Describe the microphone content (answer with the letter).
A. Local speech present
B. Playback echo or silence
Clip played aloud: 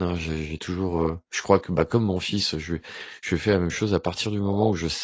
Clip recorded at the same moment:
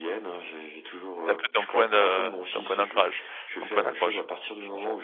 A